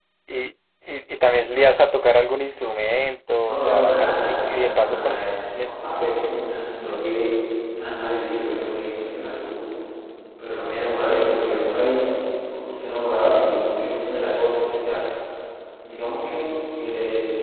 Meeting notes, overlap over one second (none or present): present